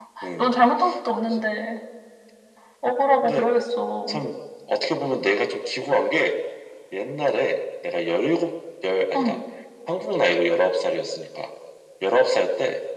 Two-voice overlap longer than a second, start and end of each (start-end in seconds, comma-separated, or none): none